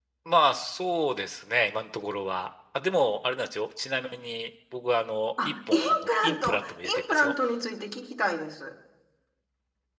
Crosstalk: present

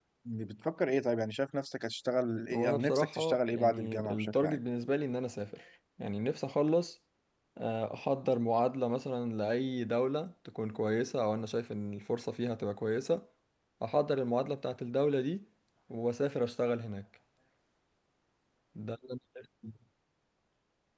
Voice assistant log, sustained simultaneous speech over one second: present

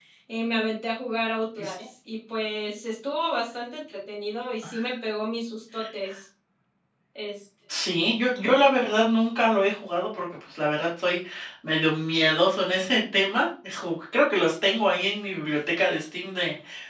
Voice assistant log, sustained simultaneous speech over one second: none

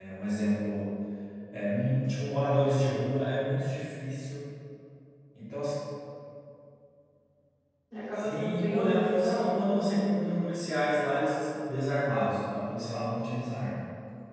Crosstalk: present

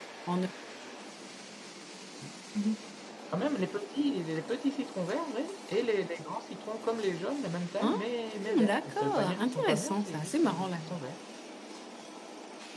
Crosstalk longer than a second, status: present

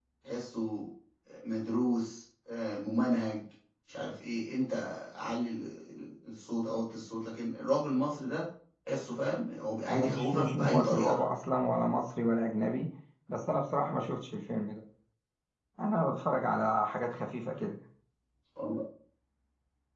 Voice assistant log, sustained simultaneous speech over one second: present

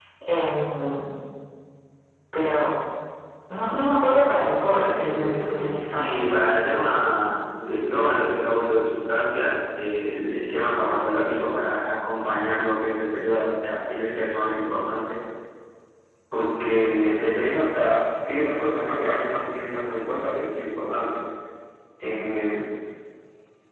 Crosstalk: present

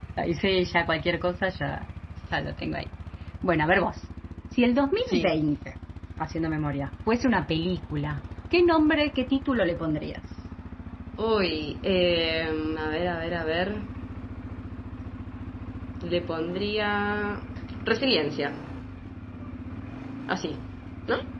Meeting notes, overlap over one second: none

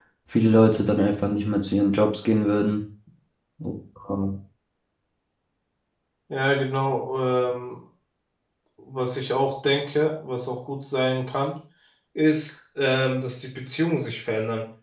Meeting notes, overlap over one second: none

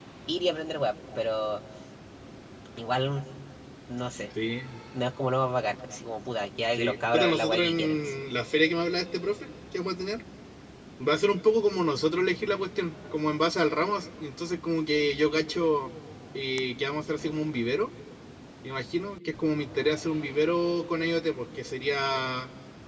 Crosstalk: present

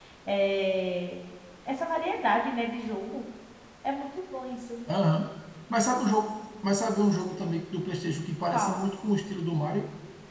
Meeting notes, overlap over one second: none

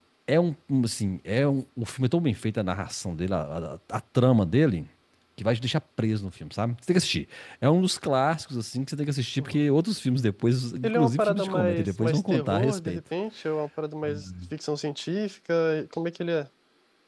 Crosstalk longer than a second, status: present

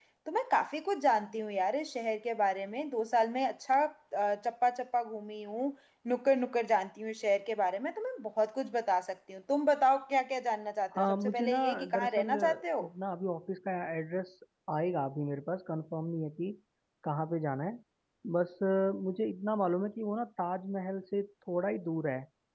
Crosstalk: present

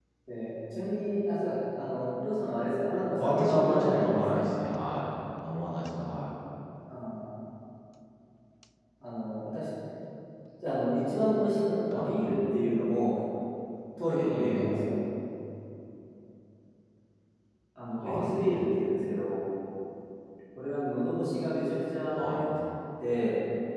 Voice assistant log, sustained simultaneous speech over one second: present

